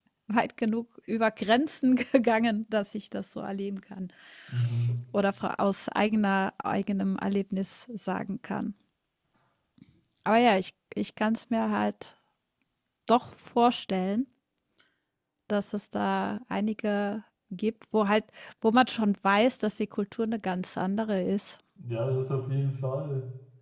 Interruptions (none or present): none